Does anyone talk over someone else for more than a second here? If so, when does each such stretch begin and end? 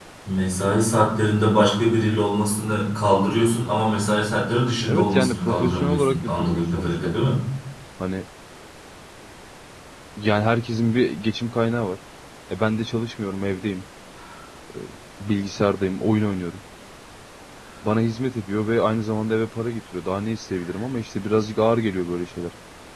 4.9-7.1

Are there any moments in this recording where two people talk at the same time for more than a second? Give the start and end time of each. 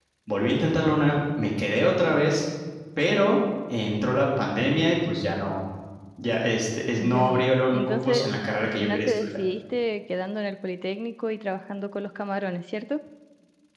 7.0-9.4

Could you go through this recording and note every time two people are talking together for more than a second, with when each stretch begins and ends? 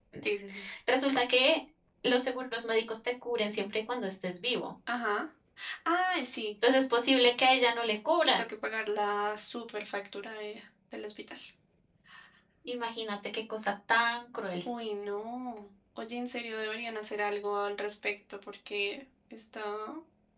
none

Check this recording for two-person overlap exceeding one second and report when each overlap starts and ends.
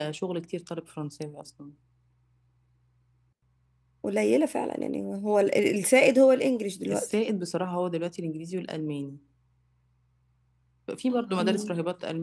none

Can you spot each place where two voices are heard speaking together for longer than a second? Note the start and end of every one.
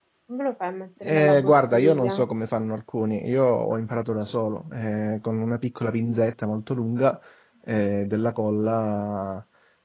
1.0-2.3

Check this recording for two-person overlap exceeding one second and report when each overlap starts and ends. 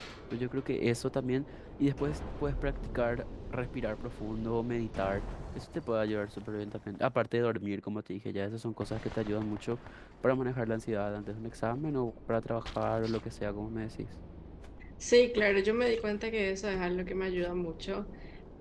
none

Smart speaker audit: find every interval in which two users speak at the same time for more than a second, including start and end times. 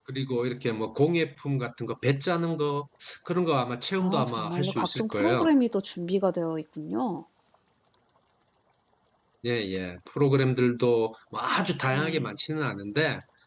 4.0-5.5

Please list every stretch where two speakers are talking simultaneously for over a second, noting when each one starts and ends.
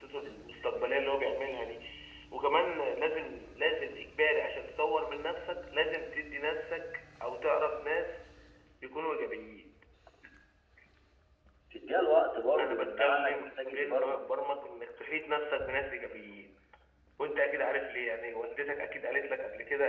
12.6-14.2

